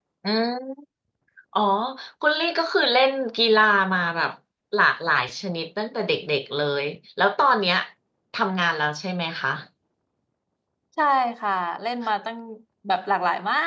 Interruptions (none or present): none